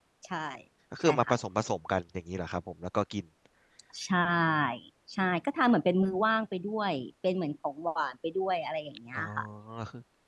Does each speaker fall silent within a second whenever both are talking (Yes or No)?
Yes